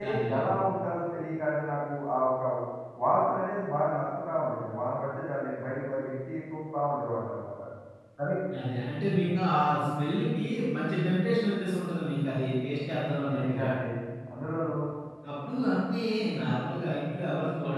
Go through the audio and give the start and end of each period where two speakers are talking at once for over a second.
none

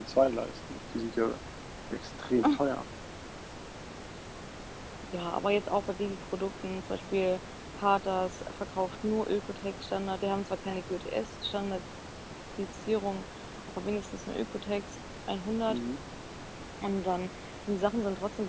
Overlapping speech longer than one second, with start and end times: none

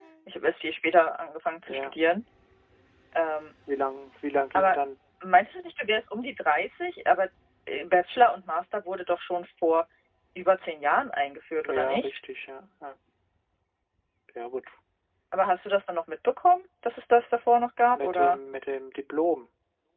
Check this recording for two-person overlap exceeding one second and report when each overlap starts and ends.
none

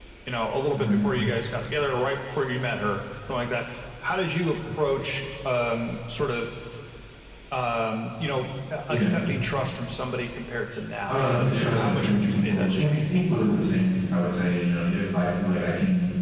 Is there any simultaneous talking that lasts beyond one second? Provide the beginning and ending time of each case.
11.1-13.2

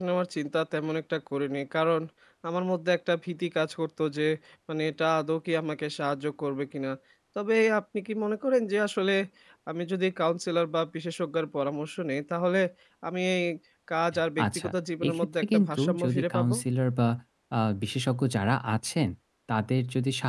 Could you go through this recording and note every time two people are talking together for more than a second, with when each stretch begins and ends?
15.1-16.5

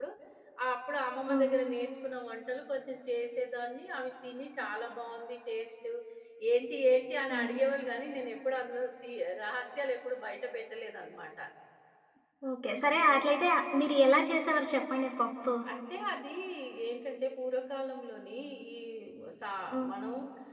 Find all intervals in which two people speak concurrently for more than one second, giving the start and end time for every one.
none

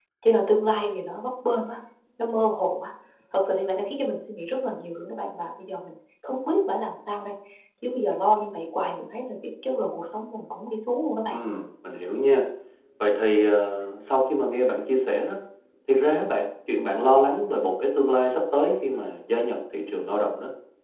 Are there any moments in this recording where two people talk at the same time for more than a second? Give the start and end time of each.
none

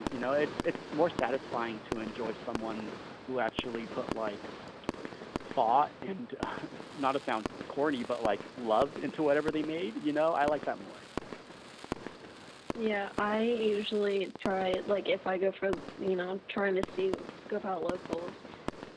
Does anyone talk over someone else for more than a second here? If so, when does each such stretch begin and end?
none

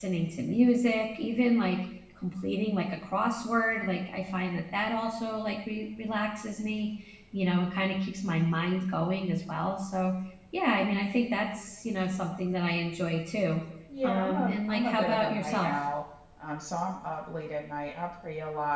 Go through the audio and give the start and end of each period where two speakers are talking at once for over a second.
14.0-15.7

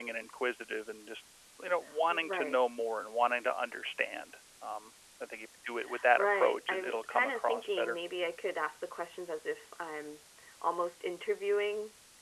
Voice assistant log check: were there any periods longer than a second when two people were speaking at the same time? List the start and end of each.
6.2-8.0

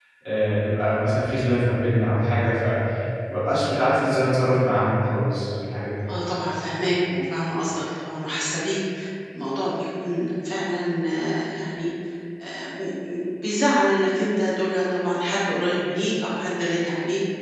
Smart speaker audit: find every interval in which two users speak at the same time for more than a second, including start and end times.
none

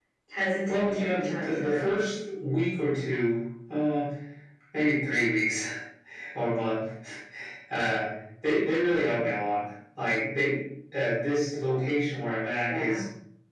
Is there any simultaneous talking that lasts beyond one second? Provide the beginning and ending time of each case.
0.7-1.9

